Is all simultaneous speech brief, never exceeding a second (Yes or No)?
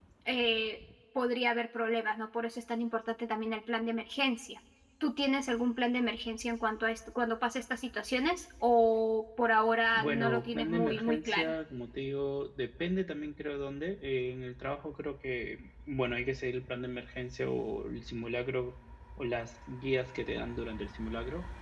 No